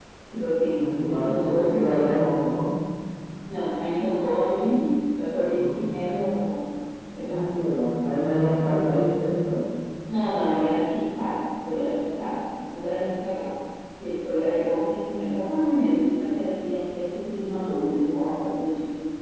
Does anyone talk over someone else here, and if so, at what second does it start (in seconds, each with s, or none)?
0.8 s